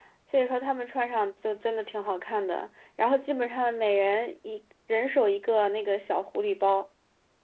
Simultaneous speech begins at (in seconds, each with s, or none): none